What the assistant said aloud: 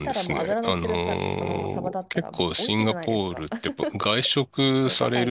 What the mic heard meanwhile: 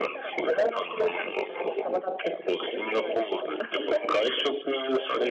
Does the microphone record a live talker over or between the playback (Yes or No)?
No